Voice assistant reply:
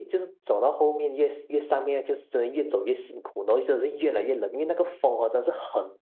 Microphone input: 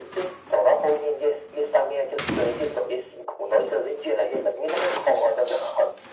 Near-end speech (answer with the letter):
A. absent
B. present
A